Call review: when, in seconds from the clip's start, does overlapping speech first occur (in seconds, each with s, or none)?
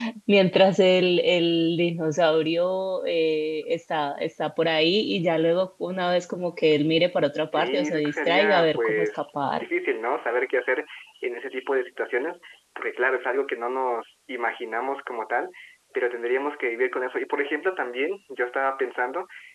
7.5 s